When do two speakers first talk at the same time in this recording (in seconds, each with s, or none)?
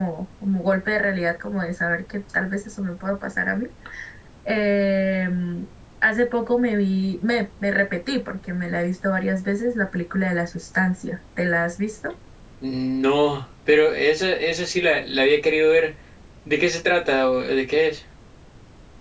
none